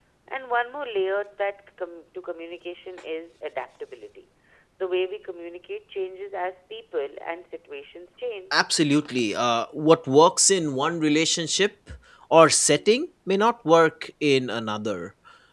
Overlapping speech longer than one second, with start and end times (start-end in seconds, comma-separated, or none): none